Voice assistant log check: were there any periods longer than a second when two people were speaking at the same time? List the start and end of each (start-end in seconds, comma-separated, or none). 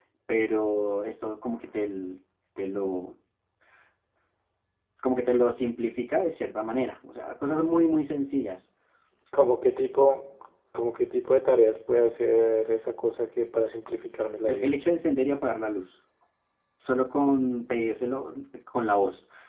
none